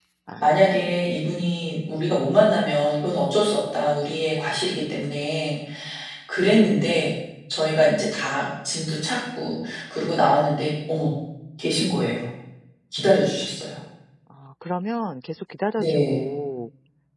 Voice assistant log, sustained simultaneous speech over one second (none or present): none